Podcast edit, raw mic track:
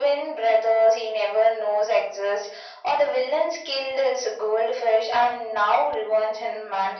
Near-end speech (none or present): none